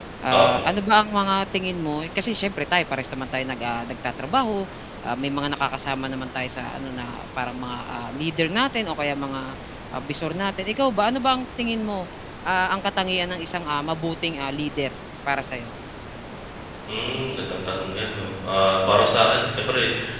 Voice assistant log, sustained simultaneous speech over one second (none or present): none